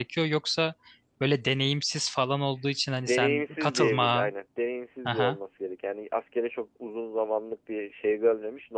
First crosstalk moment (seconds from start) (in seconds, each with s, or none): 3.0 s